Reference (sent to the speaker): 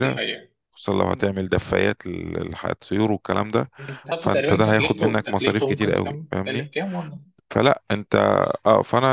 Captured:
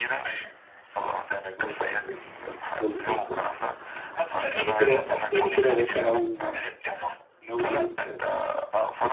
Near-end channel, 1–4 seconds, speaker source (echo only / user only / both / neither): both